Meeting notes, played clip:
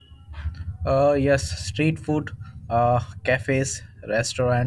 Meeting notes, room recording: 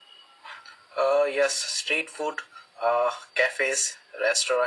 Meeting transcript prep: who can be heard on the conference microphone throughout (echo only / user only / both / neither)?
echo only